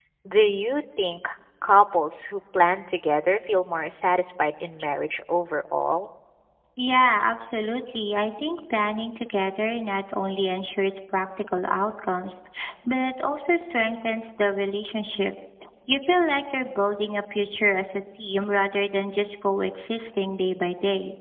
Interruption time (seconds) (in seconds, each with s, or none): none